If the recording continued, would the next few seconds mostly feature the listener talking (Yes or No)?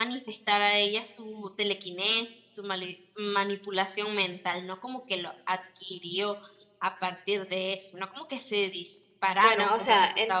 Yes